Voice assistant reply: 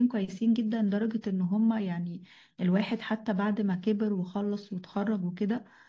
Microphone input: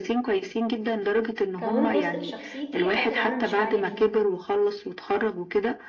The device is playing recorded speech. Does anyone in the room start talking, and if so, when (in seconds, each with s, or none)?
1.6 s